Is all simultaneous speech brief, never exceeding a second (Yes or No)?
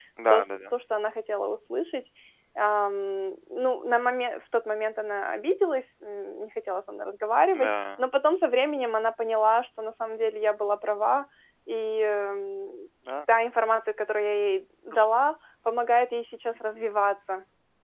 Yes